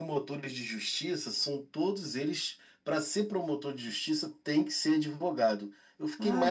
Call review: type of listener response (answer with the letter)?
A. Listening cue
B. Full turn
B